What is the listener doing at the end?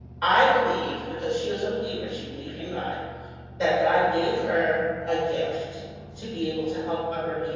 listening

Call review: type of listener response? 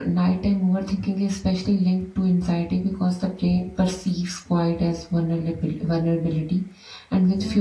listening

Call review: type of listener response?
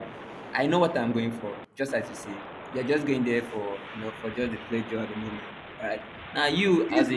taking over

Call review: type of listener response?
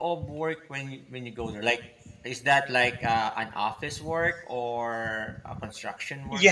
taking over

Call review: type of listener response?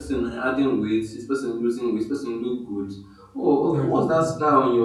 listening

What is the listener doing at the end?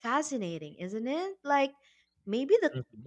listening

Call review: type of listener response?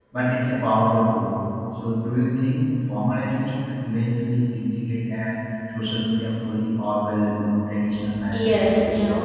taking over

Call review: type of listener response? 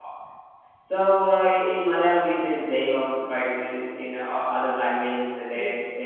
listening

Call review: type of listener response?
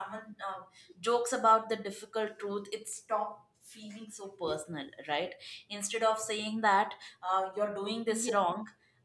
listening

